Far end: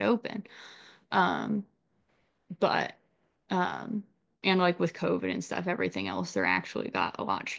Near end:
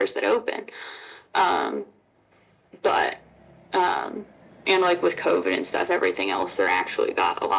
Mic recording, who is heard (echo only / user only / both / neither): echo only